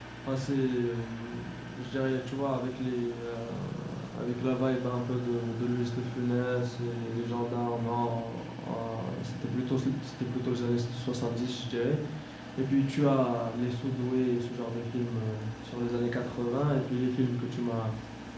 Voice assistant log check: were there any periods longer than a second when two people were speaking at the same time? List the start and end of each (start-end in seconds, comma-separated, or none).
none